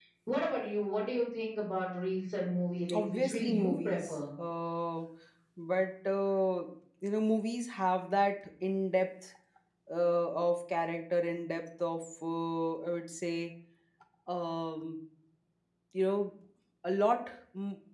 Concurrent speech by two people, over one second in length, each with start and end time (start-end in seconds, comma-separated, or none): 2.9-4.1